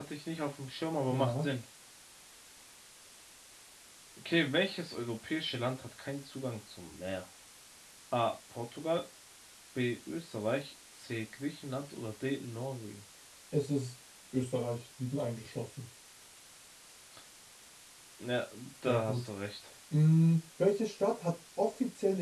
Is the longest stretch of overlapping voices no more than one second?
Yes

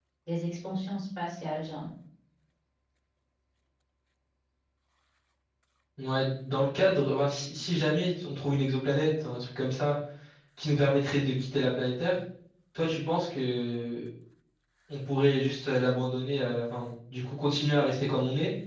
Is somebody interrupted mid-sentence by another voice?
No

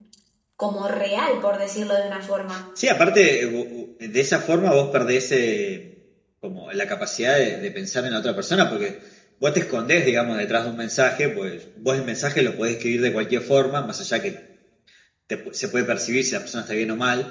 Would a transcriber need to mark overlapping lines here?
No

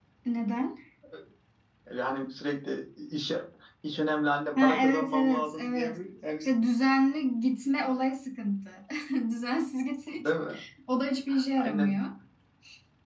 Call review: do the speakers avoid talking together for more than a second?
No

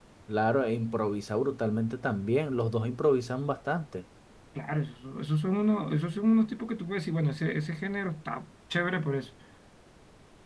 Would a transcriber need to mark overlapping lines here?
No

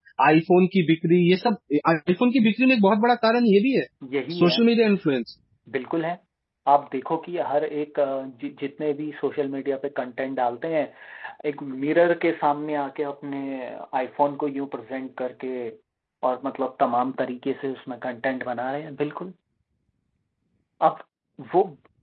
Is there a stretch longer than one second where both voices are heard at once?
No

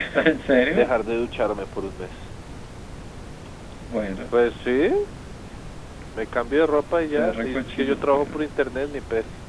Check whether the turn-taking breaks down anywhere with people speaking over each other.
Yes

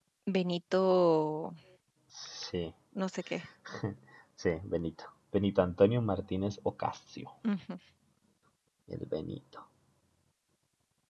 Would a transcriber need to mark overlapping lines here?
No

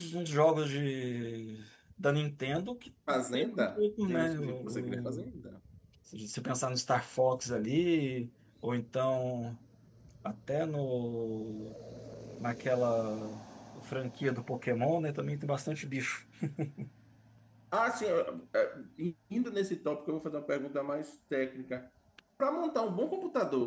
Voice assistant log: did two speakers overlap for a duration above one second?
Yes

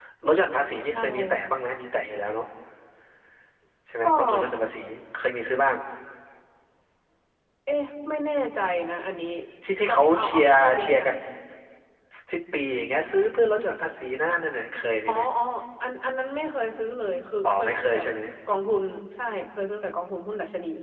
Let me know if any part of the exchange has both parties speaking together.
Yes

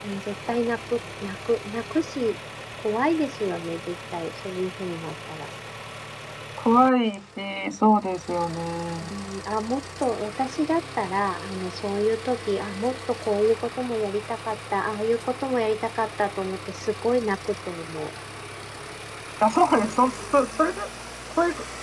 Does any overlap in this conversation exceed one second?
No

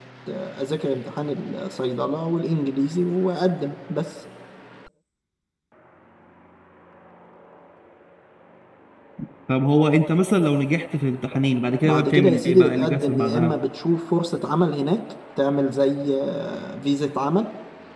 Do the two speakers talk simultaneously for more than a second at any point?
Yes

